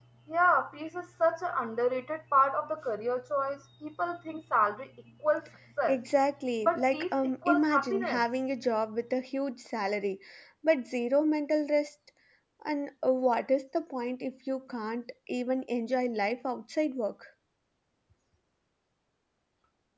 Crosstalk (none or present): present